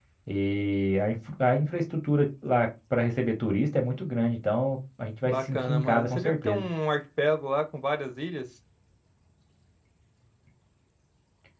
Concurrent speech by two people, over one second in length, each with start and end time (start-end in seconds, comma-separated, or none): 5.2-6.7